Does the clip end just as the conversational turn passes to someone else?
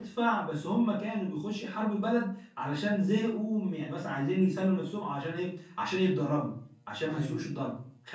No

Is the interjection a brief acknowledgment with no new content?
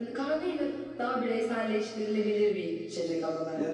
No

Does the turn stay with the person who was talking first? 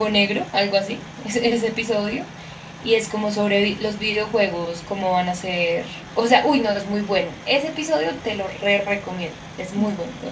No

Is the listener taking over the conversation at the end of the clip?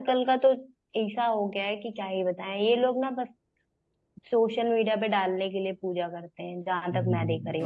Yes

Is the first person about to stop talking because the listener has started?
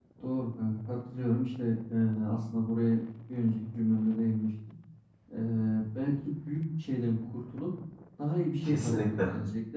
No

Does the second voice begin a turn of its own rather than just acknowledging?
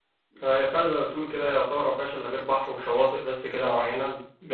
Yes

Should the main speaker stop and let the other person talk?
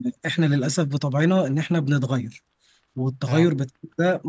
No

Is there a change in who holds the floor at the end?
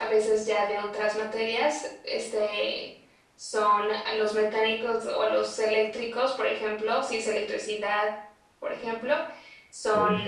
No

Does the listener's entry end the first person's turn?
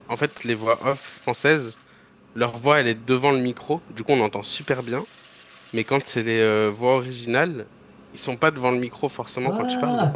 Yes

